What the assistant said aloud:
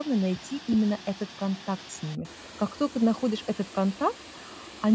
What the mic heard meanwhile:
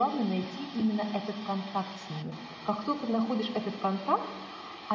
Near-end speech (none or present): none